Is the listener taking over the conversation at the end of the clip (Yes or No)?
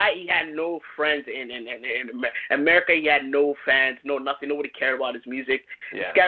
No